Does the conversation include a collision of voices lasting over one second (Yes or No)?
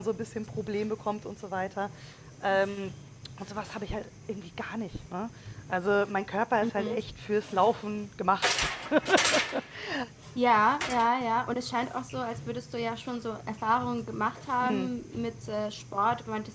No